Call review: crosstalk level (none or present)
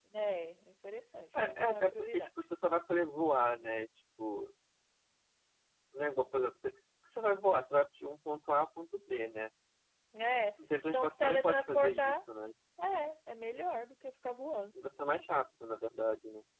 present